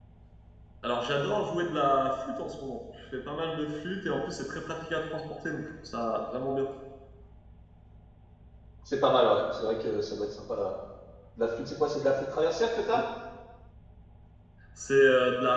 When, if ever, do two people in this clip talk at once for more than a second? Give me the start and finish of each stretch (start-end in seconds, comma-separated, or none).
none